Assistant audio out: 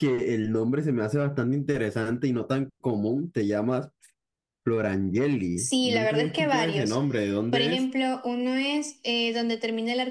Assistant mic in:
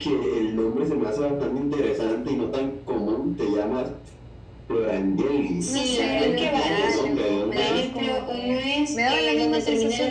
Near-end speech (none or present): present